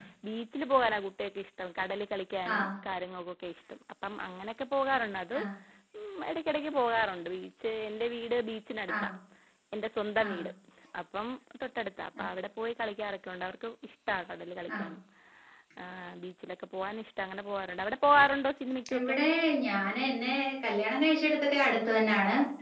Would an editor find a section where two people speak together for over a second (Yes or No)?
No